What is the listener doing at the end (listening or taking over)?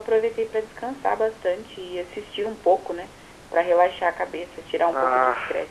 taking over